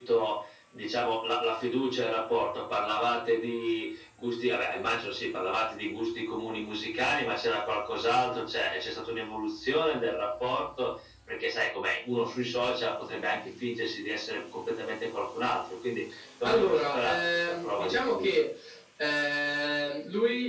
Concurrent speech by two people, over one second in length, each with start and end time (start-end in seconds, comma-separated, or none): 16.4-18.4